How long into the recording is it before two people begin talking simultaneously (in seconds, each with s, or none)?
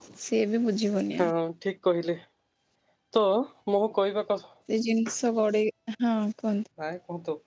none